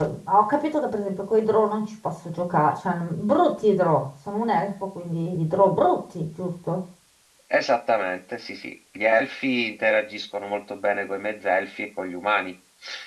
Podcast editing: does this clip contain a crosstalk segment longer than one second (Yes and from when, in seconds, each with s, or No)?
No